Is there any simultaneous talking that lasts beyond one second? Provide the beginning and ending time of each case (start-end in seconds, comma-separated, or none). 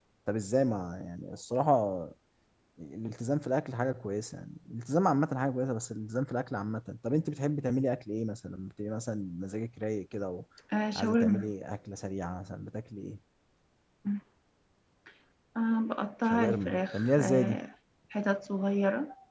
16.2-17.6